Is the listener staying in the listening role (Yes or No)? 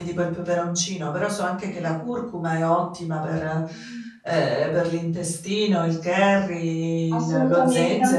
No